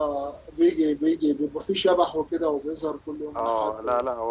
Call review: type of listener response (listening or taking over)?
taking over